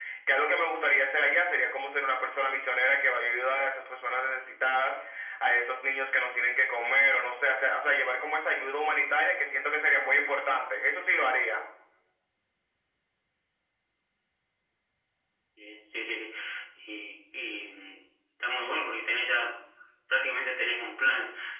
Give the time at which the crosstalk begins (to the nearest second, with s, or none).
none